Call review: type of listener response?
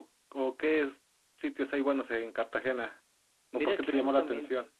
taking over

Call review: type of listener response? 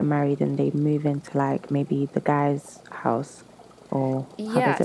taking over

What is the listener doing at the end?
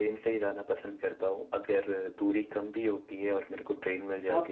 taking over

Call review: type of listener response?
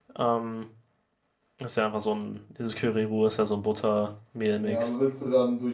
taking over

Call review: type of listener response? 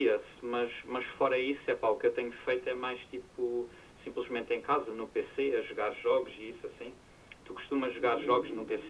listening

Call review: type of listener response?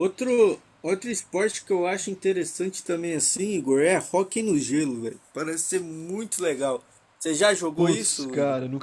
taking over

